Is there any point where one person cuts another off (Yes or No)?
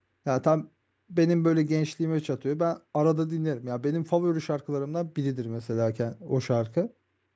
No